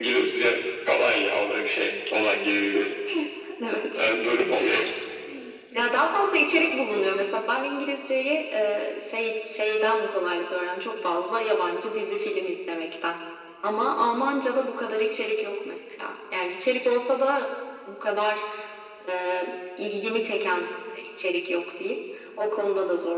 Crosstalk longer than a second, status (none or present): none